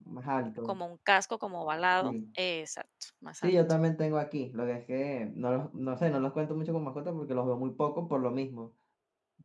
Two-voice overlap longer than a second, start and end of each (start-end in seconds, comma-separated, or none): none